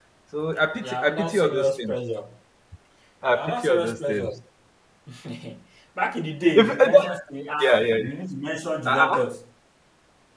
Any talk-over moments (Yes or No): Yes